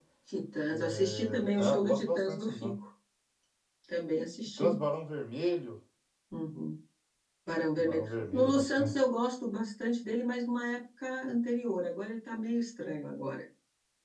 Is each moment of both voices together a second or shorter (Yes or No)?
No